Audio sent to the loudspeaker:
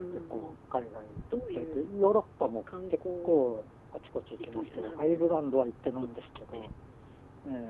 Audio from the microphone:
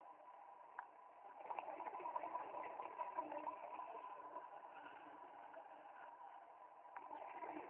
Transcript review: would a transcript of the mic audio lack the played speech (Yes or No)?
Yes